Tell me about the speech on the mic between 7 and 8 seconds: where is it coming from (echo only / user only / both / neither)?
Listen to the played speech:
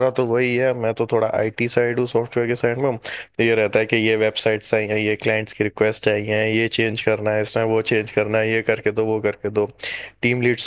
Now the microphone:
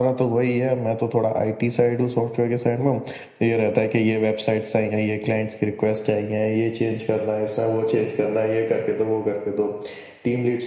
echo only